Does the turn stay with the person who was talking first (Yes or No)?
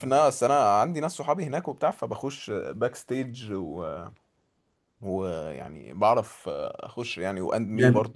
No